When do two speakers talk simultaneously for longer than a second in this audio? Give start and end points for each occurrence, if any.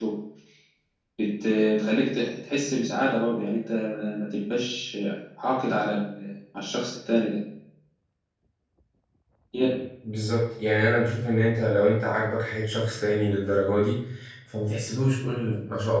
none

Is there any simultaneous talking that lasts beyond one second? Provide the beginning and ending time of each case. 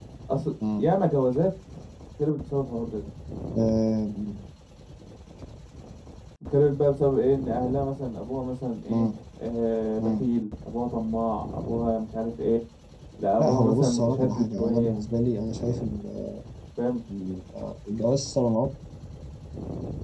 13.4-15.0

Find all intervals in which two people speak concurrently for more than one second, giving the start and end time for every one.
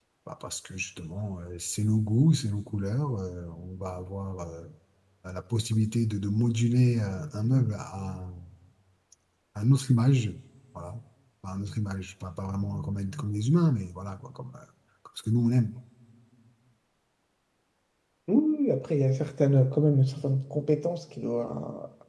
none

